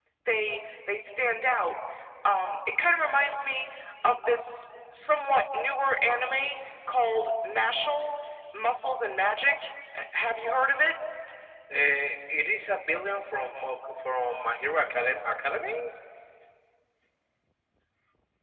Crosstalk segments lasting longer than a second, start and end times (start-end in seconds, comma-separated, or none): none